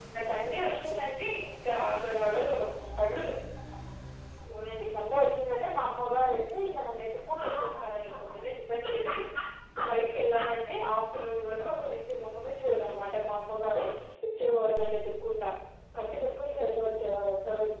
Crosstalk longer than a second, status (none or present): none